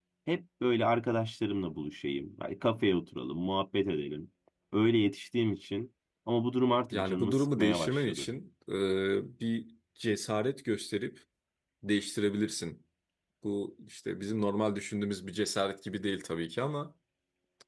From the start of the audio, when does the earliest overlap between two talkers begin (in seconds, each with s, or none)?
6.9 s